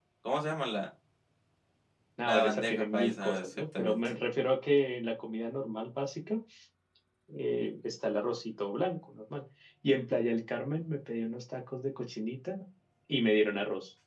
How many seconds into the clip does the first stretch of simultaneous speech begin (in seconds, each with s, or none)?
2.2 s